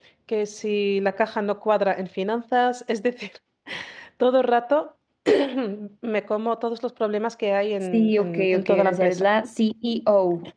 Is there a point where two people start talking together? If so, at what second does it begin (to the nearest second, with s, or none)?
8 s